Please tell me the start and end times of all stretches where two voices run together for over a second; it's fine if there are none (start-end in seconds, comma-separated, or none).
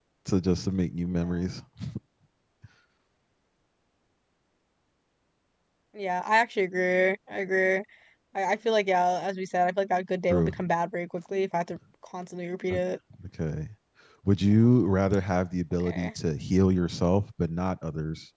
none